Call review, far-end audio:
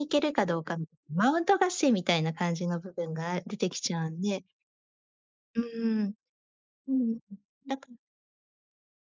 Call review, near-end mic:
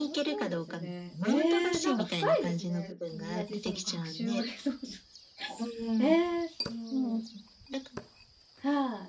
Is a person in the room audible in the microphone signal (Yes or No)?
Yes